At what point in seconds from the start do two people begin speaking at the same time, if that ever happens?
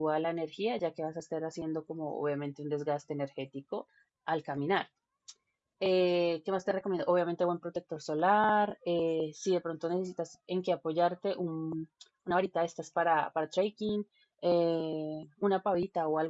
none

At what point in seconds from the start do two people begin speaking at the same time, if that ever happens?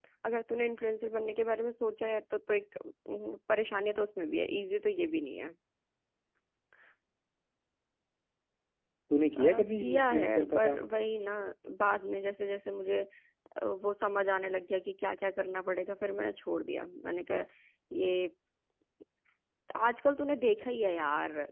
9.4 s

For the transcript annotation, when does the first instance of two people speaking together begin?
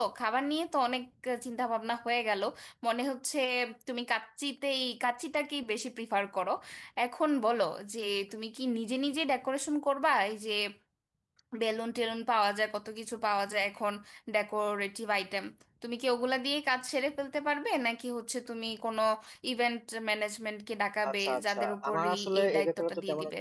21.0 s

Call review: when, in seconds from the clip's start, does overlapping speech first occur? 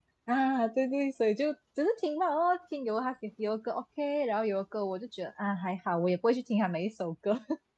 none

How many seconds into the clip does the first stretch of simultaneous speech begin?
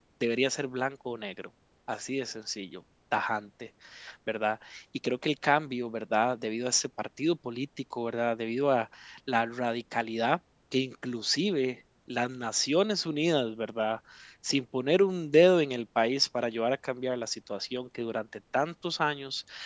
none

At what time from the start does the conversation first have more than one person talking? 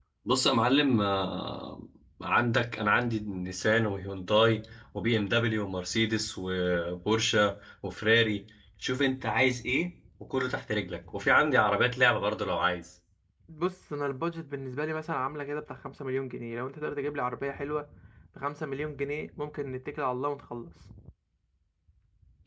none

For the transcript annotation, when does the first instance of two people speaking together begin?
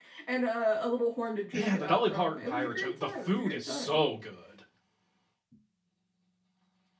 1.5 s

